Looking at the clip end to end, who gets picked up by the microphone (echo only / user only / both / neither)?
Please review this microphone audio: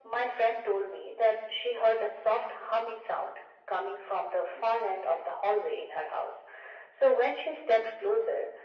echo only